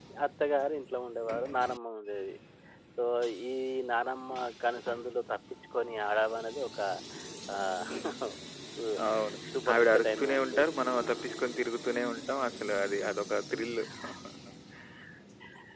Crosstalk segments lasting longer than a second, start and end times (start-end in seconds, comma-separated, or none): 9.7-11.6